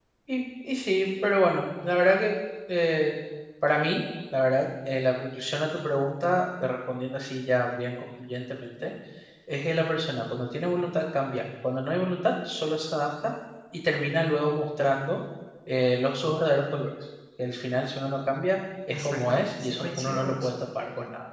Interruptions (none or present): present